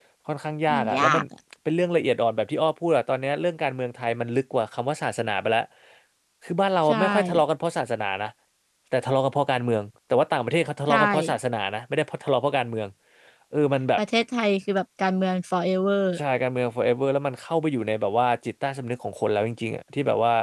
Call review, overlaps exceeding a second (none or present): none